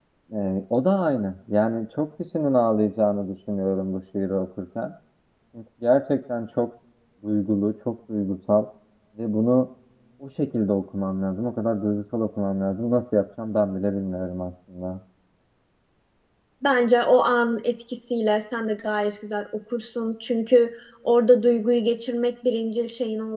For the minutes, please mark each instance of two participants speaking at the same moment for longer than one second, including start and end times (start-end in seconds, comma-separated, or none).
none